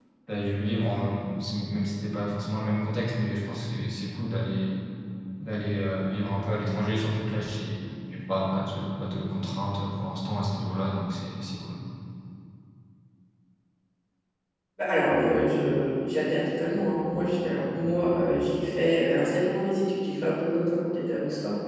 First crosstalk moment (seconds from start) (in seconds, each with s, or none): none